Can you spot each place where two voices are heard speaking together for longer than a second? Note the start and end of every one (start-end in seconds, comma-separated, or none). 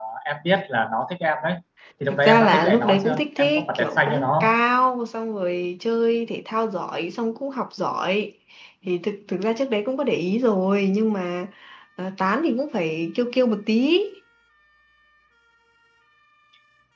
2.1-4.5